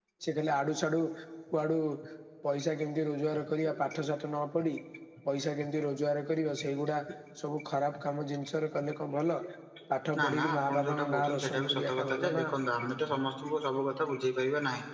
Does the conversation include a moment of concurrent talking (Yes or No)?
Yes